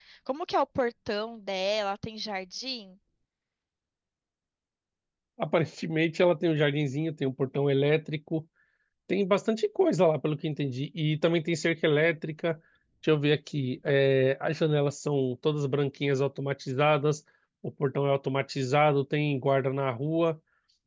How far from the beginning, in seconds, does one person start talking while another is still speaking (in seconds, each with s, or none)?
none